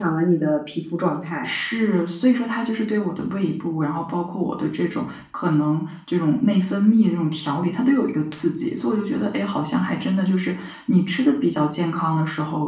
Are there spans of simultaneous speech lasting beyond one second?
No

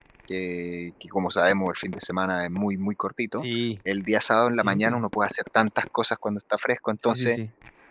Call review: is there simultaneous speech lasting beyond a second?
No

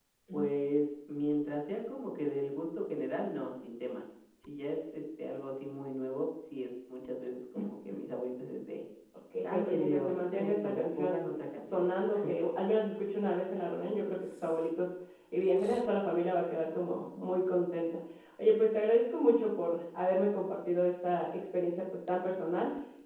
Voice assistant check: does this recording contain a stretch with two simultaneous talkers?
Yes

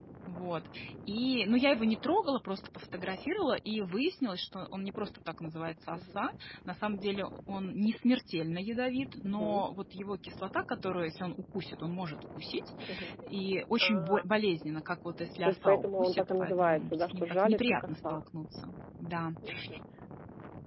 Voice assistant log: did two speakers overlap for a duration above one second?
Yes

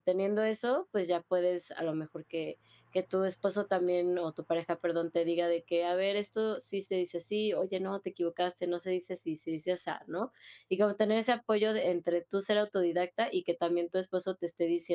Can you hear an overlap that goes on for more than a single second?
No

